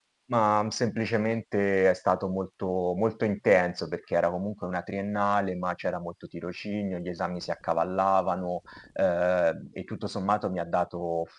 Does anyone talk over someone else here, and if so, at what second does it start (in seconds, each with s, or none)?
none